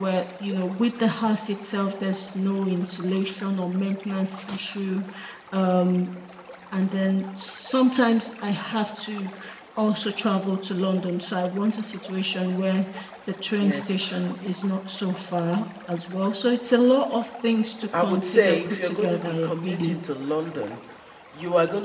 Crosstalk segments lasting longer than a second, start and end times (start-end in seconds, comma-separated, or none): 18.0-20.0